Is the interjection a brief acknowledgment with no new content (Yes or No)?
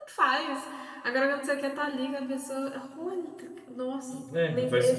No